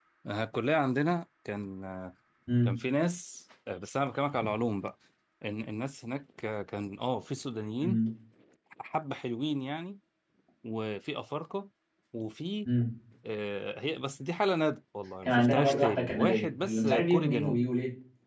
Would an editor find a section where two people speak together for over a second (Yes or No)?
Yes